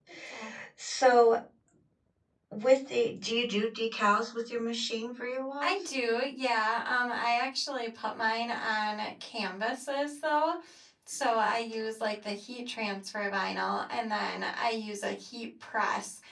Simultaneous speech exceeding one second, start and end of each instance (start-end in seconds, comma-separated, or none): none